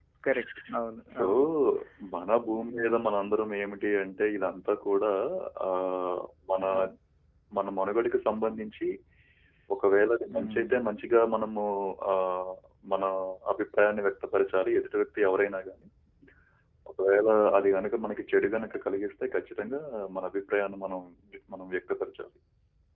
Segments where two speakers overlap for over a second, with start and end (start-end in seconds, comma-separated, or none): none